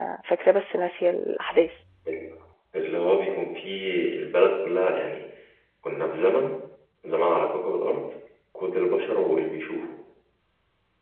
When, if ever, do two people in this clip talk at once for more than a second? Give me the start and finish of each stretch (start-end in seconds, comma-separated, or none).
none